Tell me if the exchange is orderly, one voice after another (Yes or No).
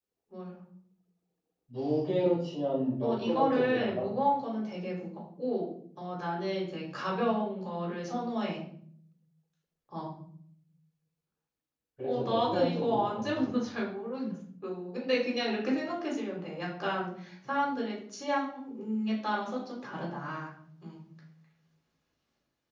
No